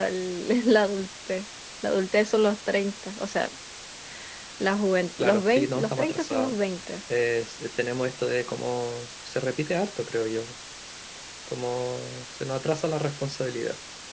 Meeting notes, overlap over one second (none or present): present